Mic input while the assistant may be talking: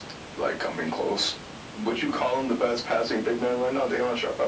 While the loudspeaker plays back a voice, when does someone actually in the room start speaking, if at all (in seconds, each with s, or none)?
none